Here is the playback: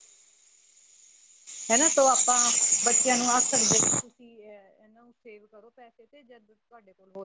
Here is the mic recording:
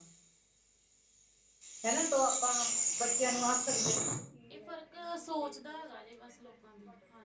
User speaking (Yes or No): Yes